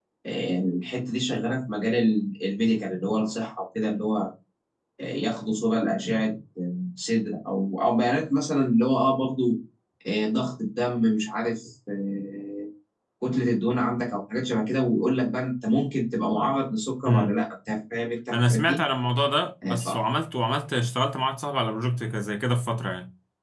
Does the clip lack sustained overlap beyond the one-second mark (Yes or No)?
Yes